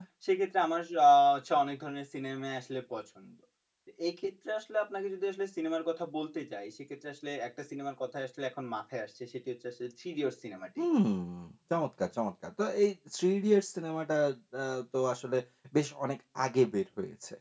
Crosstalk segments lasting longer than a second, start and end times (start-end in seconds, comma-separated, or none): none